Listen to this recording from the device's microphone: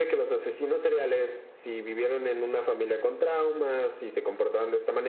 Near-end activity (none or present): none